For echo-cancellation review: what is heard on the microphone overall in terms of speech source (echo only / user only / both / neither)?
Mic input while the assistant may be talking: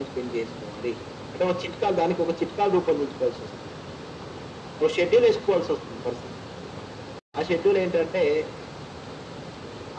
echo only